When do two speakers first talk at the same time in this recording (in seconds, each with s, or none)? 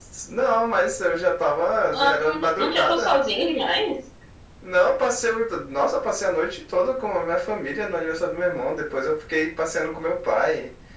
1.9 s